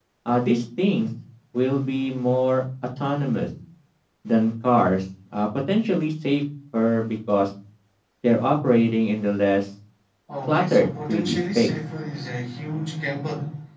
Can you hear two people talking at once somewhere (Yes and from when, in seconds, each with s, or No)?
Yes, from 10.4 s